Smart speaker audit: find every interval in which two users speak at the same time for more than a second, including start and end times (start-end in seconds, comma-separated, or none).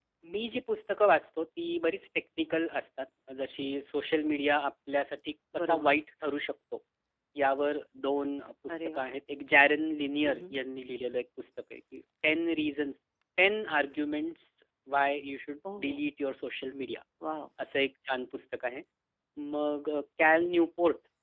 none